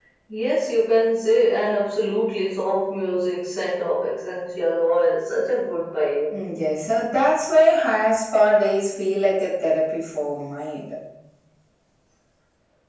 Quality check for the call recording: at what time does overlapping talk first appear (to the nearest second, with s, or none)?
none